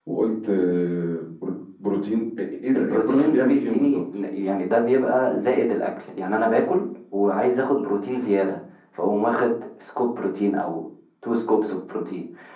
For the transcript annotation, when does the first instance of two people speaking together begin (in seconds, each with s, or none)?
2.7 s